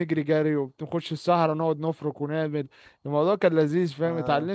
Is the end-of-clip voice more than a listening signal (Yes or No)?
No